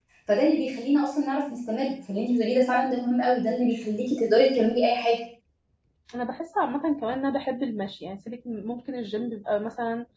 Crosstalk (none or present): none